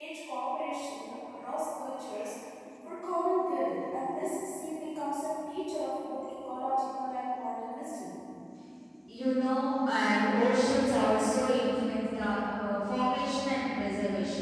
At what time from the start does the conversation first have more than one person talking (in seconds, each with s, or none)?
none